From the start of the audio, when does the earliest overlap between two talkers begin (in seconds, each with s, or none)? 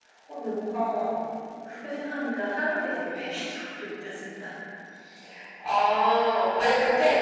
none